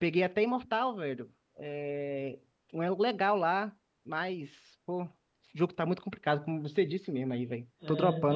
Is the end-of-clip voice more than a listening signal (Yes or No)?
Yes